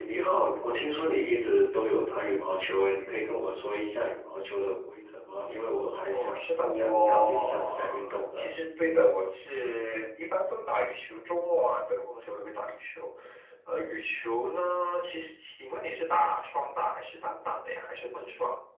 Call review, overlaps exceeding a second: present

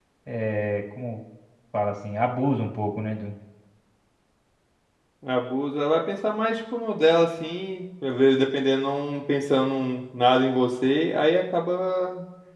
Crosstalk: none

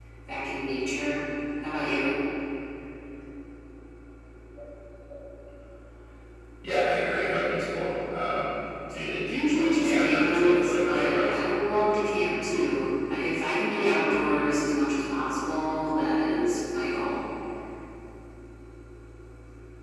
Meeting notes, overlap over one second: present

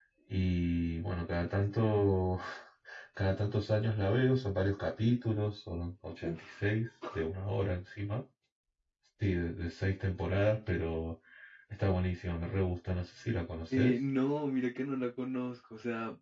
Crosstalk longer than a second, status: none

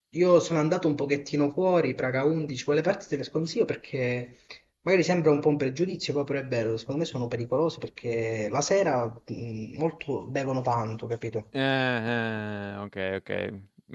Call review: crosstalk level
none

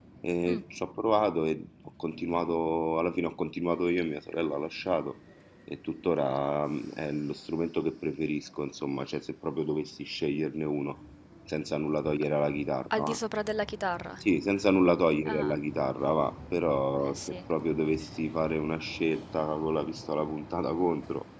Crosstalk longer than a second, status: none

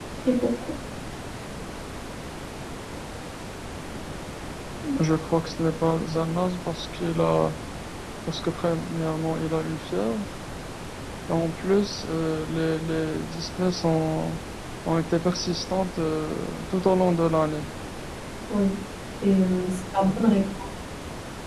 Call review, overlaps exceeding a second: none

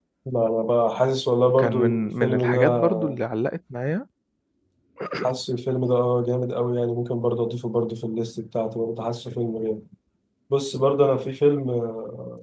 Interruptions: present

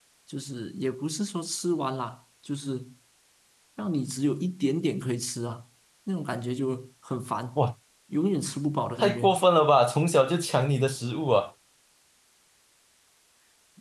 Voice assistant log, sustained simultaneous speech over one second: none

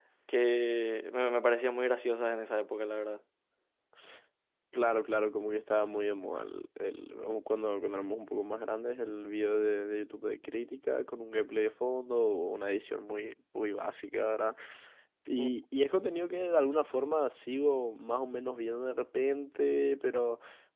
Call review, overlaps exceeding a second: none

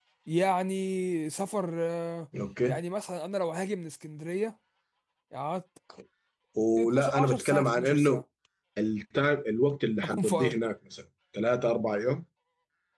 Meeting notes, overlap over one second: present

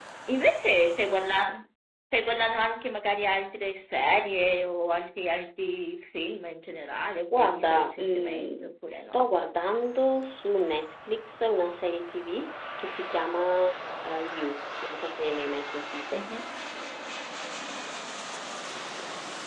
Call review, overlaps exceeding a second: present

